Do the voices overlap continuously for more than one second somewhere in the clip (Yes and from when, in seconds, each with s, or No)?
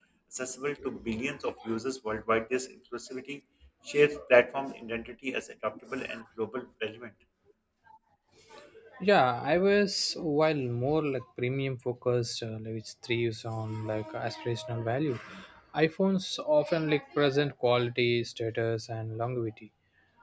No